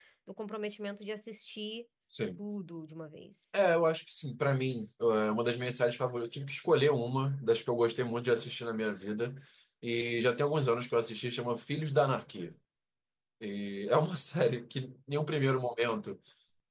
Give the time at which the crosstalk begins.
none

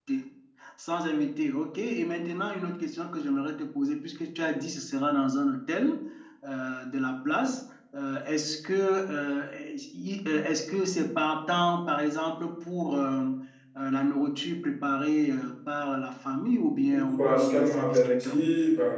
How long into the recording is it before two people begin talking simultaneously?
17 s

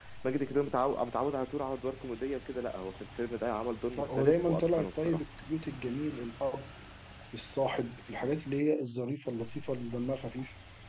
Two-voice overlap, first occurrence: 4 s

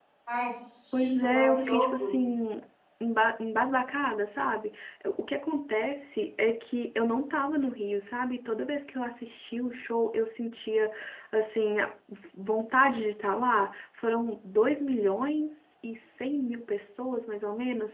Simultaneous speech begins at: 1 s

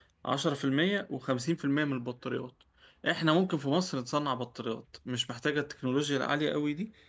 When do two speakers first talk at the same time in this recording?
none

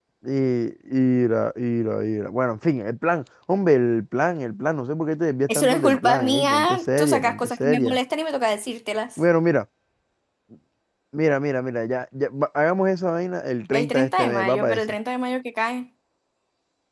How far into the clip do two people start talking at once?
6 s

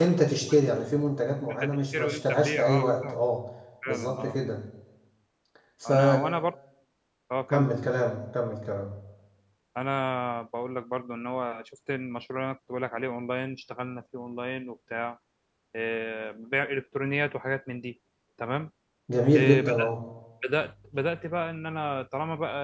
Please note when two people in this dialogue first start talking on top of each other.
2 s

